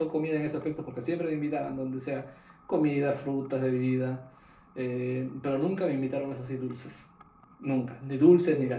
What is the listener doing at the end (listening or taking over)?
listening